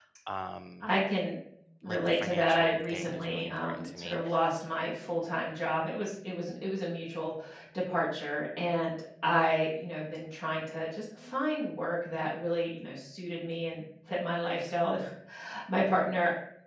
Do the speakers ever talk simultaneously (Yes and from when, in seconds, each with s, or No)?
Yes, from 1.8 s